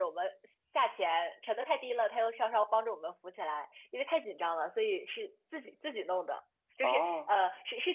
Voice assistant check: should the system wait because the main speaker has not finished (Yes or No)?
Yes